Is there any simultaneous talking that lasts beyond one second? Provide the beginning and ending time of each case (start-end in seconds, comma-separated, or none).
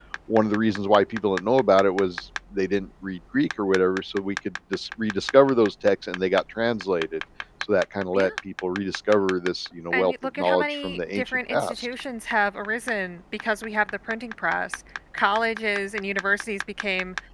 9.9-11.9